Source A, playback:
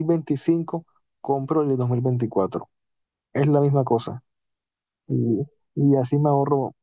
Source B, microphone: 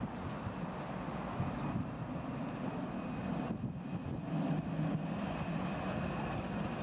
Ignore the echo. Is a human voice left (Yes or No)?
No